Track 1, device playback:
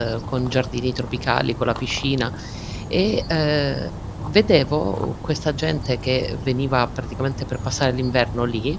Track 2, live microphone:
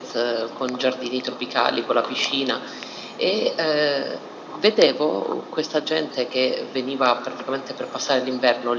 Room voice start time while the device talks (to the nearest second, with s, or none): none